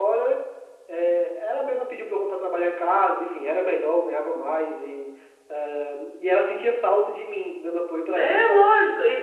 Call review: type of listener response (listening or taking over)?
taking over